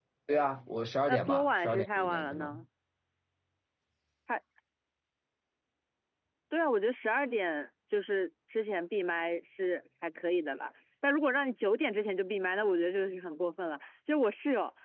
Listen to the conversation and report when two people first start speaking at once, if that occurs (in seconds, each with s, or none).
1.1 s